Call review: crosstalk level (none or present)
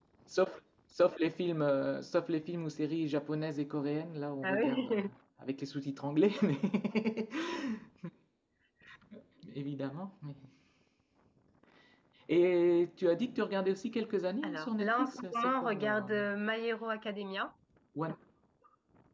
present